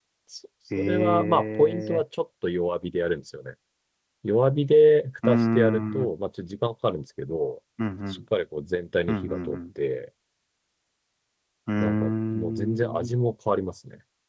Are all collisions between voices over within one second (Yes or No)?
No